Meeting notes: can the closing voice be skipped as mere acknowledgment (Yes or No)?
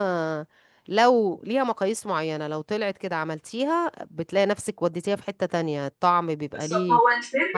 No